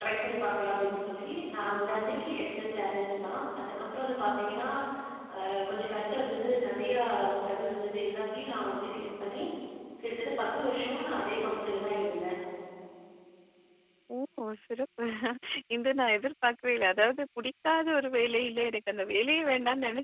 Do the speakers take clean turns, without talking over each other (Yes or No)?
Yes